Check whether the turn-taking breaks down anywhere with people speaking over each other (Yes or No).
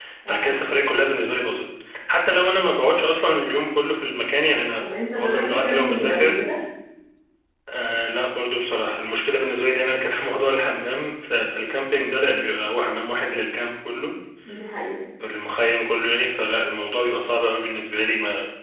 Yes